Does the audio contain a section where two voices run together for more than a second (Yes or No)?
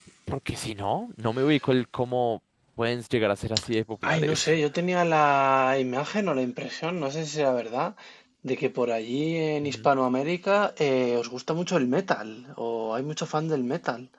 No